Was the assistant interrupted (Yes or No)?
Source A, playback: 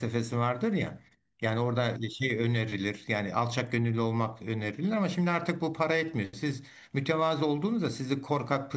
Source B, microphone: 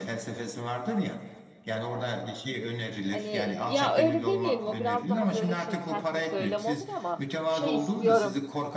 Yes